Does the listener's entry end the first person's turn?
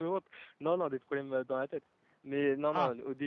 No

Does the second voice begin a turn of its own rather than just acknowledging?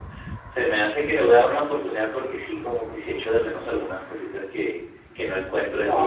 Yes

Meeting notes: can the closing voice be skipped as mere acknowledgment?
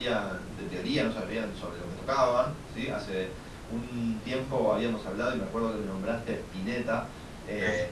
Yes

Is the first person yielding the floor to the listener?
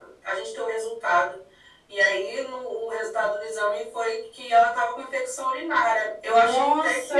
Yes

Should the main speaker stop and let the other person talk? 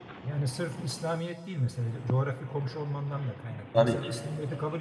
No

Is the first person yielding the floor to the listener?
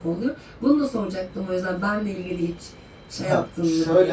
Yes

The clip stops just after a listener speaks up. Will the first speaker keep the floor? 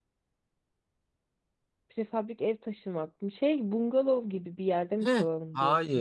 No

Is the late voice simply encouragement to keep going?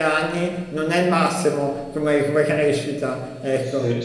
No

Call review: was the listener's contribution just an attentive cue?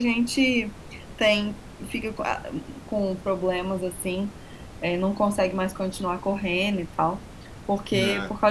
Yes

